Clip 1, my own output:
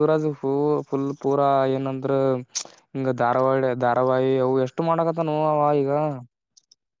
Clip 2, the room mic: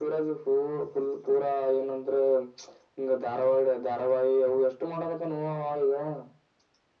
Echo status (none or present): present